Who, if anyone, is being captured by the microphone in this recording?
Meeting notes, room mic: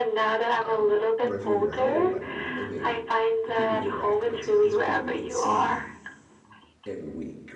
both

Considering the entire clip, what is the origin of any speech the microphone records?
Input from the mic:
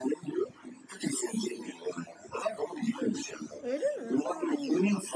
both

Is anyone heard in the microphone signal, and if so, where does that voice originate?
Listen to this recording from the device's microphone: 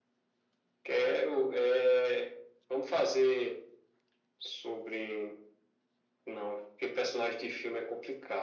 echo only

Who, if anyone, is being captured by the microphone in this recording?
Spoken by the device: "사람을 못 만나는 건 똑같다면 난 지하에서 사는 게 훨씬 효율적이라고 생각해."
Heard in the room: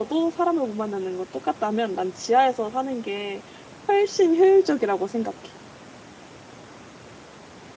echo only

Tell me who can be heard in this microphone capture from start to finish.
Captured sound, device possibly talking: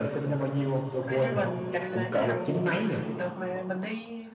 both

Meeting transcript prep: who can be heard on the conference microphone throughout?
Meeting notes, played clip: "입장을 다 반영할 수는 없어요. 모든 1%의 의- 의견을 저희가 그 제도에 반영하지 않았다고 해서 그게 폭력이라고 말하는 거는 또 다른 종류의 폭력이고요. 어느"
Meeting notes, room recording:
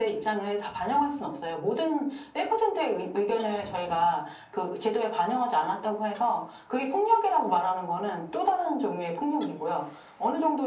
echo only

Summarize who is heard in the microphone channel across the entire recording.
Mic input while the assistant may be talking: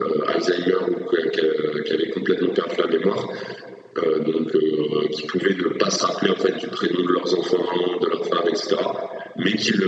echo only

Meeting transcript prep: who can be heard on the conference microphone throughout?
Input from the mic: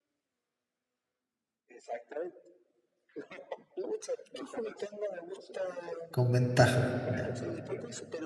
both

